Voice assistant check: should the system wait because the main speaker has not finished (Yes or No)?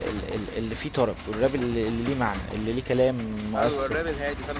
No